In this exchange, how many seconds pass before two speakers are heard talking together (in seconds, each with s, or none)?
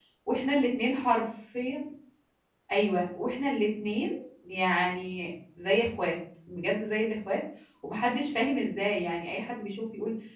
none